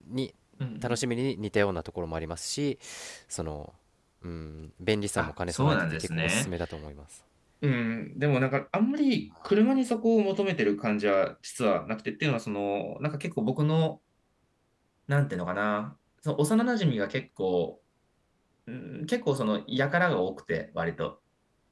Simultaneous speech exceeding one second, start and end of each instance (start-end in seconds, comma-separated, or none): 5.2-6.5